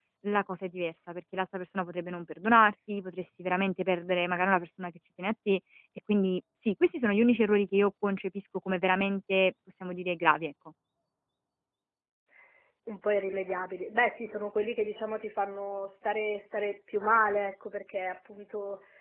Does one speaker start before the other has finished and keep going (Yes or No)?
No